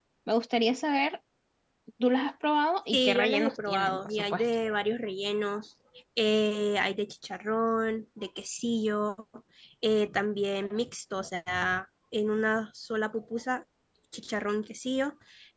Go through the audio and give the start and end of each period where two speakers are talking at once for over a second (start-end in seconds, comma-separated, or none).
2.9-4.4